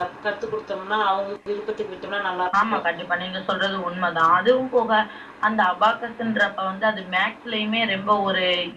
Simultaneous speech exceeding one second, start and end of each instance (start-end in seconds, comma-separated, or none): none